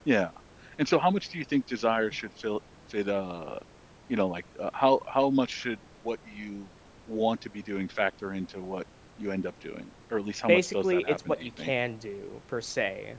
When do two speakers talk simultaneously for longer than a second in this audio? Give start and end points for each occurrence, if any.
10.5-11.7

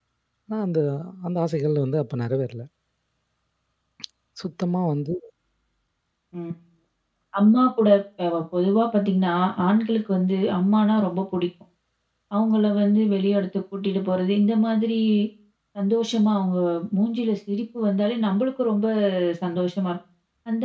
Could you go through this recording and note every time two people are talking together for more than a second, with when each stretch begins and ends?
none

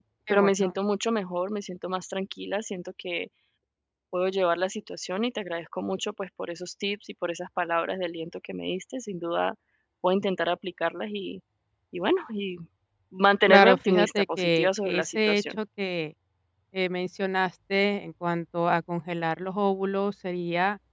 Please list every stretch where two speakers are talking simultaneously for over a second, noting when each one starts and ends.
13.5-15.6

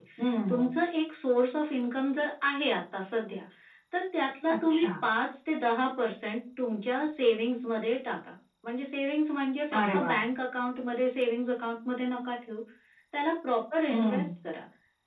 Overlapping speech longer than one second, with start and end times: none

